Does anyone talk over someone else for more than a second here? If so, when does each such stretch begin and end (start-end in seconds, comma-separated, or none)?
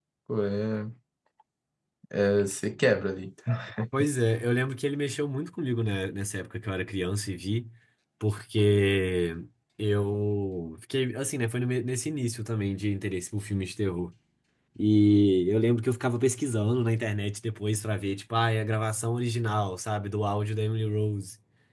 none